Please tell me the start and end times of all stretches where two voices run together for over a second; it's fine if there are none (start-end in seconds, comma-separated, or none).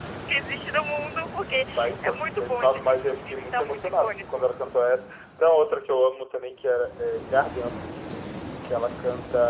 1.8-4.5